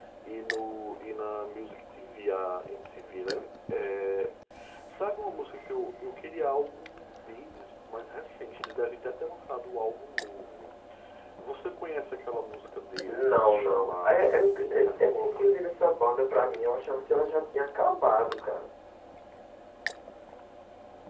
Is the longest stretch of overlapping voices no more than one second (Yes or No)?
No